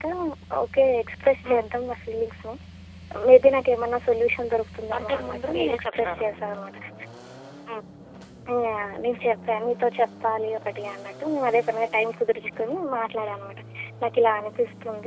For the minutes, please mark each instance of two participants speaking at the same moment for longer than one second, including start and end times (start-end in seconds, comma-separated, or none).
5.0-6.2